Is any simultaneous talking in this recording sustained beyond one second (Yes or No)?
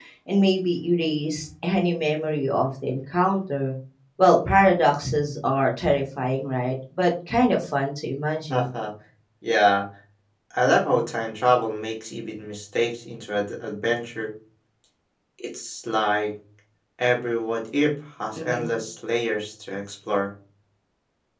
No